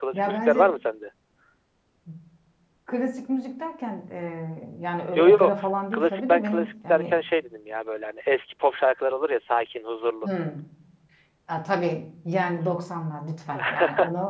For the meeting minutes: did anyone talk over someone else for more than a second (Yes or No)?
Yes